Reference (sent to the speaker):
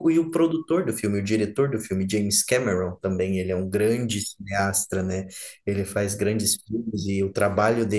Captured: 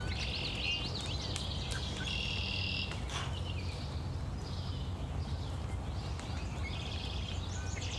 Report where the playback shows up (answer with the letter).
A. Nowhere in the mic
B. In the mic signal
A